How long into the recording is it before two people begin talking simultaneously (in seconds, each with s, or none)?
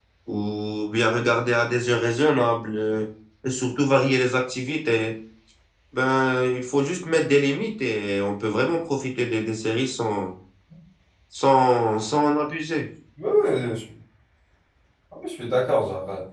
none